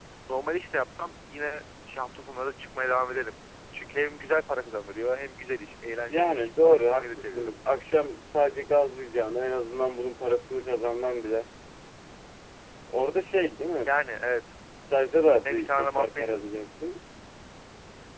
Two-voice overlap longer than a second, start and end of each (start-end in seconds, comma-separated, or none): 6.1-7.5, 15.4-16.6